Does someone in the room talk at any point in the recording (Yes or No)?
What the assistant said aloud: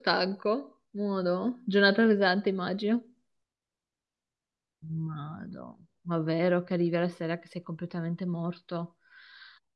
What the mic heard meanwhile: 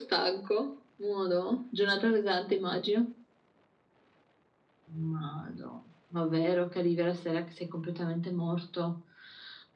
No